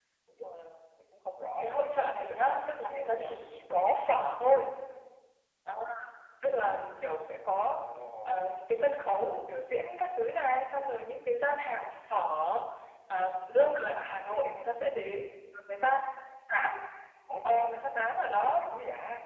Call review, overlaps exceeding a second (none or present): present